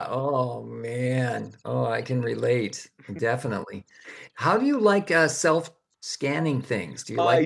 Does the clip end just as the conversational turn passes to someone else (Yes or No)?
Yes